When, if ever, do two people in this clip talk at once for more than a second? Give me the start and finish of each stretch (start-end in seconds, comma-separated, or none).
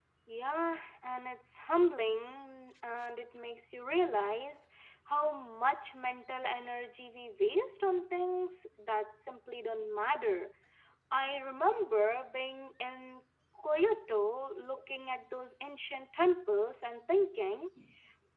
none